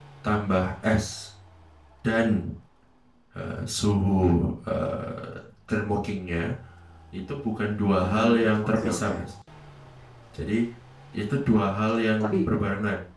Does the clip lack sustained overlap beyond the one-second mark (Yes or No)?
No